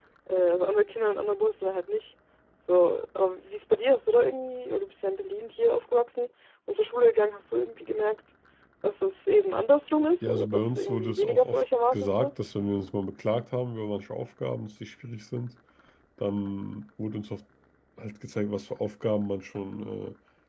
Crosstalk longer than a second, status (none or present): present